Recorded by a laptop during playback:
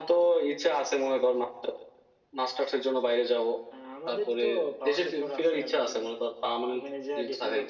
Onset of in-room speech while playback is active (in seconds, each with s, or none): none